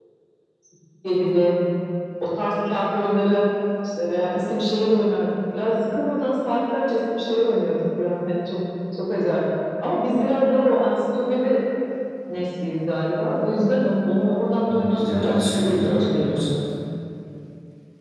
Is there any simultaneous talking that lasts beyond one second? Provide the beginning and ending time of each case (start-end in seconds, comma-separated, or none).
14.7-16.4